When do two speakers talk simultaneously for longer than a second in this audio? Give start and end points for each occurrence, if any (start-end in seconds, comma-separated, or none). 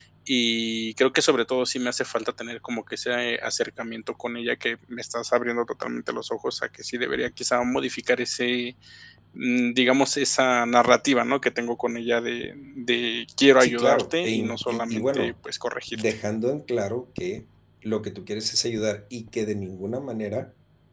13.6-15.3